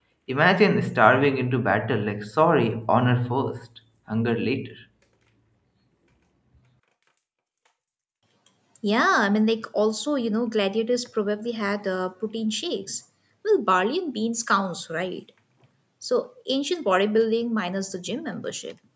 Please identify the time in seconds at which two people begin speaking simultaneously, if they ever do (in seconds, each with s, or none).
none